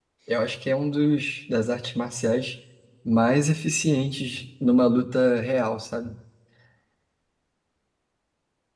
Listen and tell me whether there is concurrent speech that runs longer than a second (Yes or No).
No